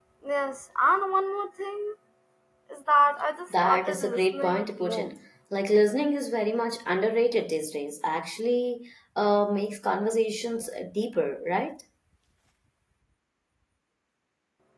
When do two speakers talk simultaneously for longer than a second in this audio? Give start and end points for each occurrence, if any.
3.5-5.1

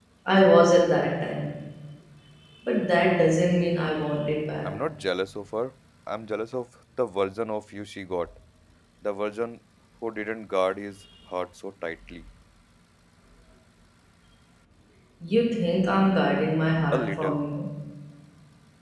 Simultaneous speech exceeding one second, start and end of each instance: none

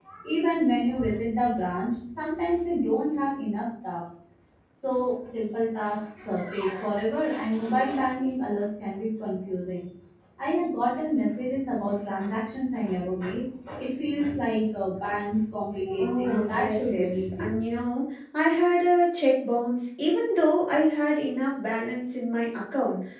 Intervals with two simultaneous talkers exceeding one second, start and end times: 16.0-17.5

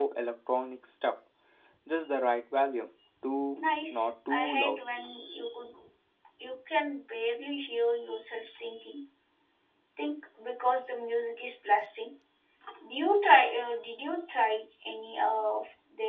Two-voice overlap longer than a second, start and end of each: 3.6-4.8

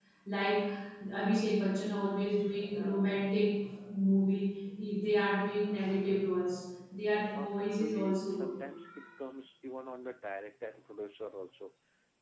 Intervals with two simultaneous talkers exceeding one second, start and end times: 7.3-8.5

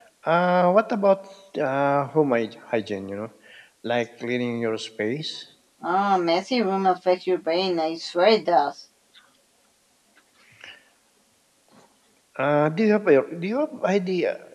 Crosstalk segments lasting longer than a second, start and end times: none

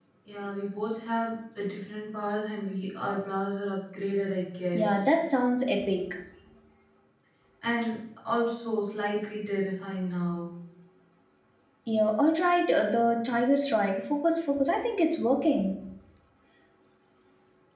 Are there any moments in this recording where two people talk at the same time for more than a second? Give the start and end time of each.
none

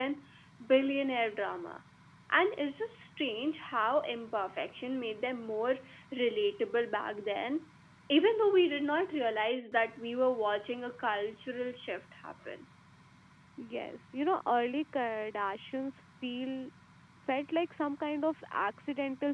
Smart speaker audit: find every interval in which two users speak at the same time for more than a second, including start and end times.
none

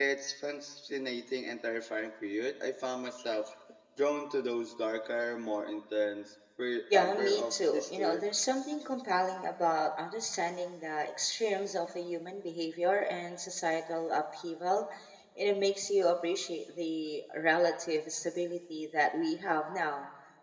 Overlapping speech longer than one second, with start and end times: 6.9-8.2

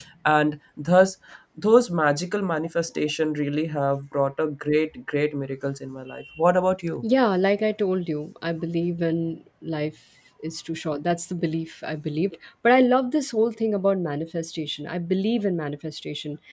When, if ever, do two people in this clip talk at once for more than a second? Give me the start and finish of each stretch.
none

